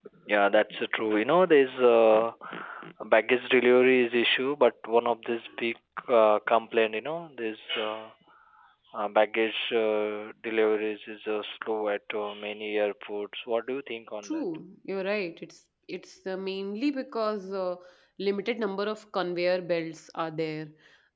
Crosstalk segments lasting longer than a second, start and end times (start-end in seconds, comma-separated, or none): none